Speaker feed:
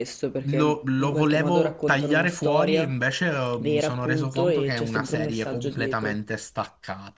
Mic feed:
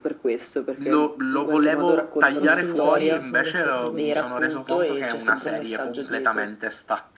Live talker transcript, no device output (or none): Assolutamente, sono d'accordo con te.